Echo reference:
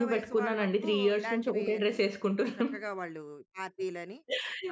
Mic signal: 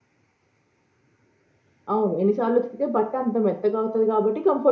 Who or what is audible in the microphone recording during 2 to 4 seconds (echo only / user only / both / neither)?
user only